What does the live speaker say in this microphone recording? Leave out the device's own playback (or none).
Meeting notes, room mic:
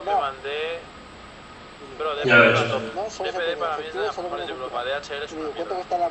Ya ves.